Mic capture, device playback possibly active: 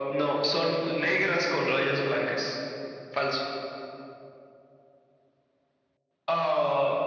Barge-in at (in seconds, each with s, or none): none